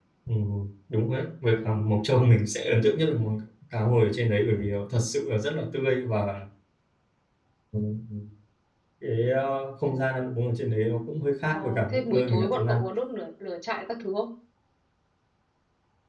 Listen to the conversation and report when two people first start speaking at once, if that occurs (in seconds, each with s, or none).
11.5 s